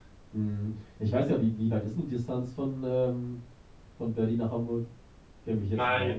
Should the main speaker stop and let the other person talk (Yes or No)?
Yes